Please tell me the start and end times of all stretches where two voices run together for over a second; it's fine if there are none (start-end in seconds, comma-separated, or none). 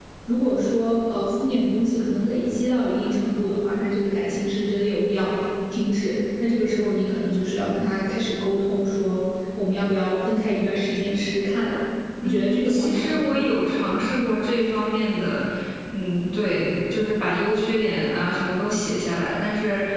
12.2-13.4